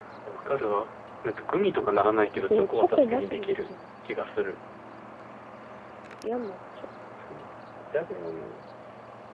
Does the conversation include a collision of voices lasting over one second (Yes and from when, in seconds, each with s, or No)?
Yes, from 2.3 s